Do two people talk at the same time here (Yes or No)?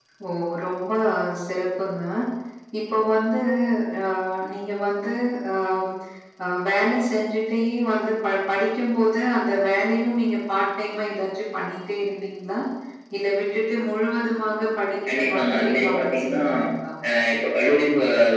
Yes